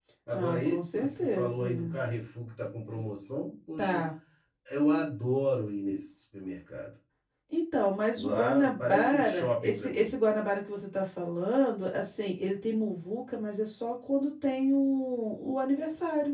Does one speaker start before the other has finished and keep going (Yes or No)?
Yes